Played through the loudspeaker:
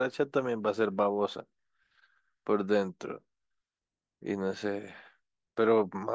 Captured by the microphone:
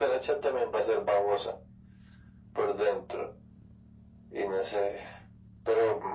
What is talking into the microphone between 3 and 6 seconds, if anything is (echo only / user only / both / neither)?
echo only